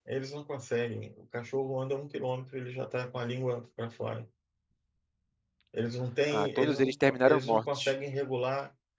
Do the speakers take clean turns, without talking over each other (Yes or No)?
No